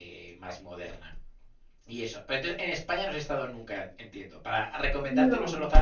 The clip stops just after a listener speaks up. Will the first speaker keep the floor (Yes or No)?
Yes